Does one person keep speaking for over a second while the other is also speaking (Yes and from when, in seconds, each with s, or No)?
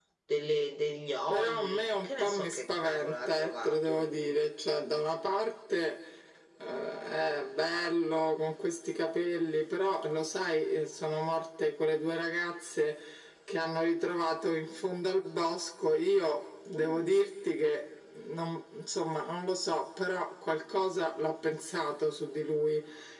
Yes, from 1.3 s